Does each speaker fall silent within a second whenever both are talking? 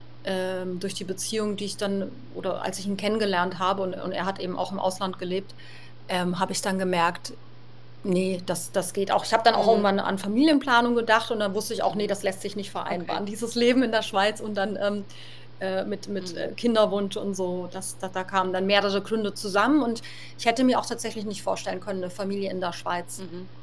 Yes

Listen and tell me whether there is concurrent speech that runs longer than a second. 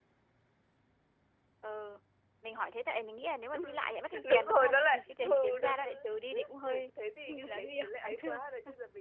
Yes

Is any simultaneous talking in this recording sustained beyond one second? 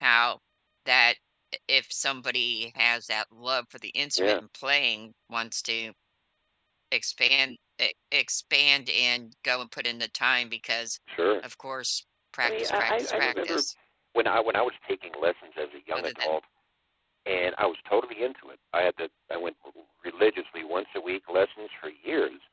Yes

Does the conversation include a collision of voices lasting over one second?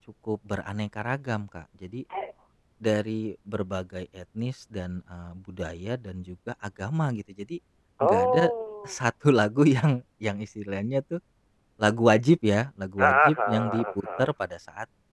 Yes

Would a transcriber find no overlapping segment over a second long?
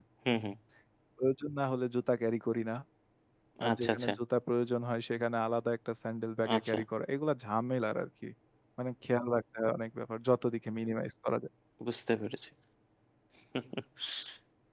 Yes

